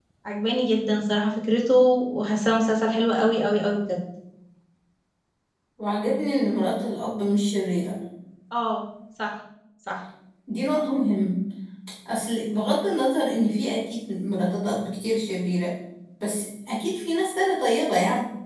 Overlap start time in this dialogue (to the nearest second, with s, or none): none